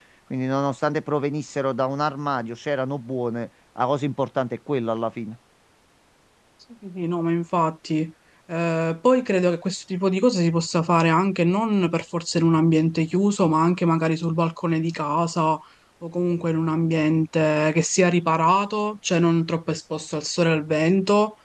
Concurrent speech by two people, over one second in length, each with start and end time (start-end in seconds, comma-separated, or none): none